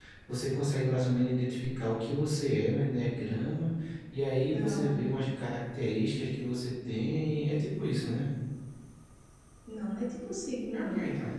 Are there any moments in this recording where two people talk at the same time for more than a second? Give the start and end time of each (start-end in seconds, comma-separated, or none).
none